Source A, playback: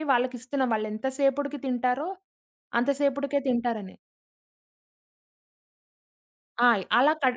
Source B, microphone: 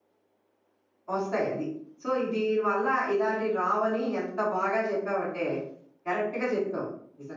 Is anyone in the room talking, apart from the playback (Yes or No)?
Yes